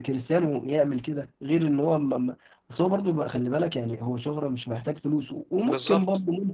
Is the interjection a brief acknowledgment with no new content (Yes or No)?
Yes